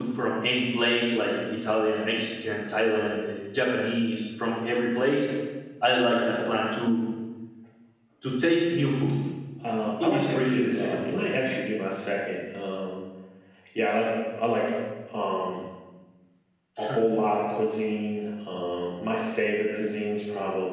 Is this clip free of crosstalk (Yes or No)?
No